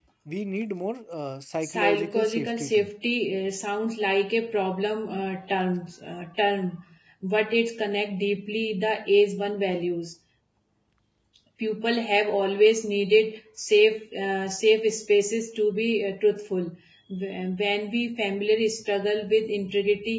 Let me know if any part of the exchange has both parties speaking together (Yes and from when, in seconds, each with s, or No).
Yes, from 1.6 s